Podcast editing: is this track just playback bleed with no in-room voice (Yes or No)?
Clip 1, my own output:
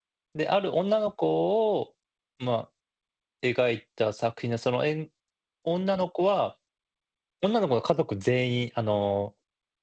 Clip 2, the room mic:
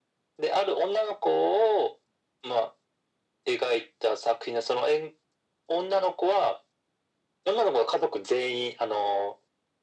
Yes